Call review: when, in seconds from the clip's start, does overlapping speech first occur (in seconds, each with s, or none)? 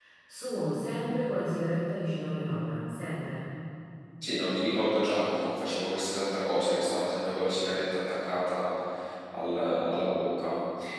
none